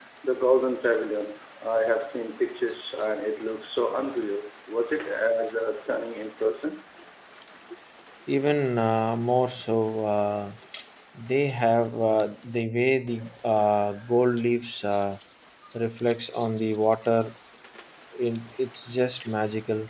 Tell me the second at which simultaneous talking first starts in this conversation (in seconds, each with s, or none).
none